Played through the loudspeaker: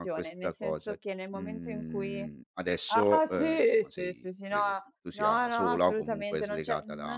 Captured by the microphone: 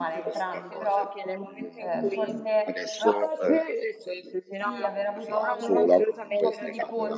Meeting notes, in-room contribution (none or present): present